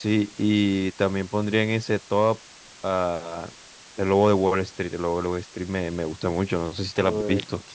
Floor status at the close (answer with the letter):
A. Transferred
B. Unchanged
A